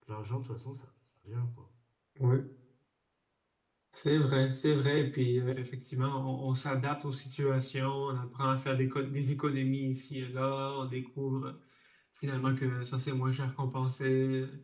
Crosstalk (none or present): none